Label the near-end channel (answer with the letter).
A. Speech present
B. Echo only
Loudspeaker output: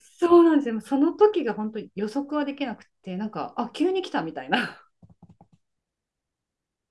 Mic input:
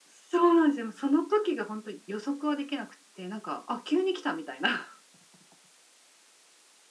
B